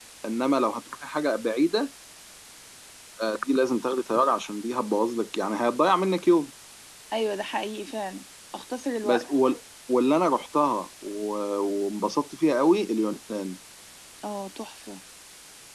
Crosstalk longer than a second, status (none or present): none